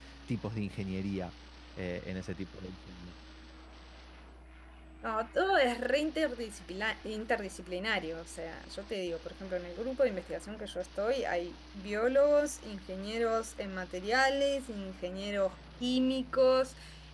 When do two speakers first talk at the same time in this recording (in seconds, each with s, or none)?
none